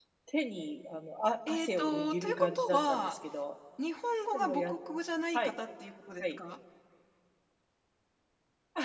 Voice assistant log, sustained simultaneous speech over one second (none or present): present